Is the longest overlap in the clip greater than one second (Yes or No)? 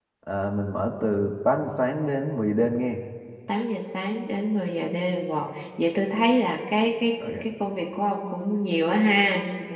No